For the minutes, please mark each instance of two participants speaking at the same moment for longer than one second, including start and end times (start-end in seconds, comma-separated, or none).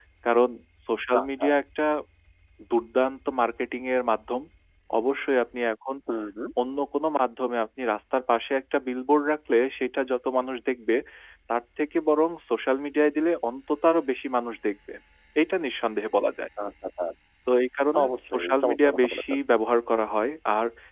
18.0-19.4